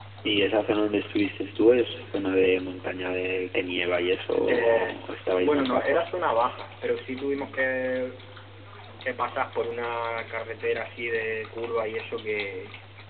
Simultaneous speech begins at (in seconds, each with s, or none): 4.5 s